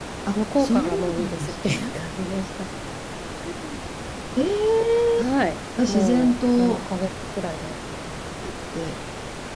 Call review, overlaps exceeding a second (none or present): present